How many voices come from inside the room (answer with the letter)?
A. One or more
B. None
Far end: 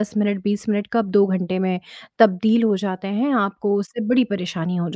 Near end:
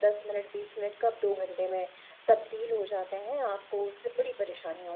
B